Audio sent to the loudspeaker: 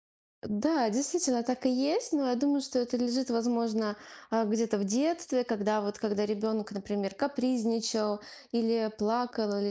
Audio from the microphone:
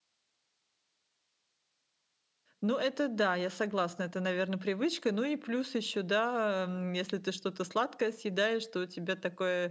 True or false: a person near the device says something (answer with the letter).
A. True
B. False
A